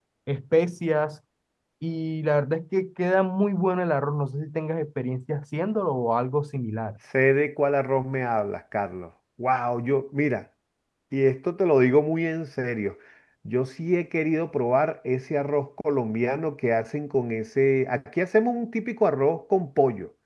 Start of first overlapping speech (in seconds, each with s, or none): none